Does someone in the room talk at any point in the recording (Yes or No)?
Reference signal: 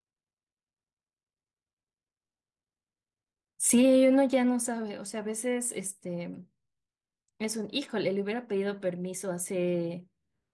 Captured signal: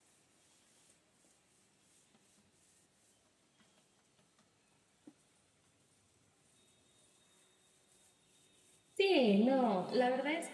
Yes